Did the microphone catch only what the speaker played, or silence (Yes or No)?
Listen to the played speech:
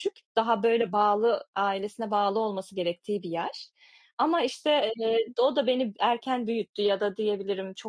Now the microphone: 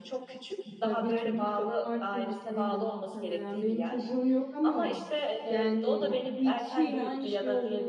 No